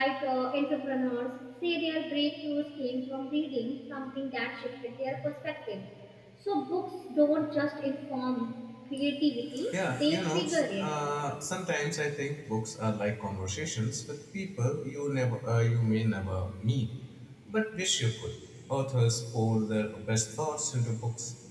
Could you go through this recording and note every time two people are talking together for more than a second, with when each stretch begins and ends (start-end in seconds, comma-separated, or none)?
9.7-11.0